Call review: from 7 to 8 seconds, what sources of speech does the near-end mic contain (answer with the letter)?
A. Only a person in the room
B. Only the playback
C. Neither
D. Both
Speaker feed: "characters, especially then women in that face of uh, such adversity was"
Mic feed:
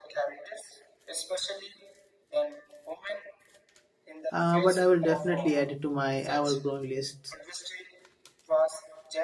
D